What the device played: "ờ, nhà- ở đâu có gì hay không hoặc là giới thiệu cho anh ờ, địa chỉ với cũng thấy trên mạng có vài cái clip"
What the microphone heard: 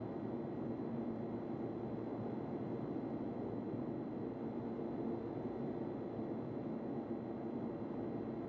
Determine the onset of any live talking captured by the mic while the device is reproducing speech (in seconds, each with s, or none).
none